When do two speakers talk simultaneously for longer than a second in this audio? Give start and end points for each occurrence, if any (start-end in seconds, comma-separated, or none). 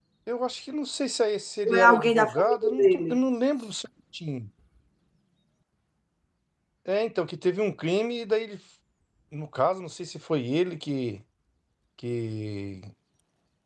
1.6-3.2